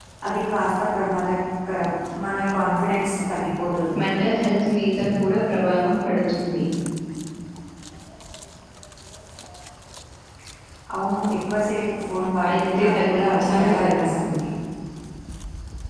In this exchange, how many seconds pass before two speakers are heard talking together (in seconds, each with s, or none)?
12.4 s